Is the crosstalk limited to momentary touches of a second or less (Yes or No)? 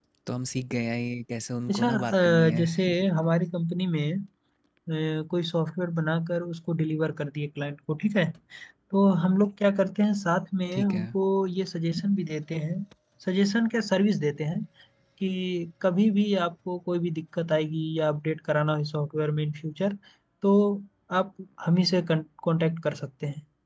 No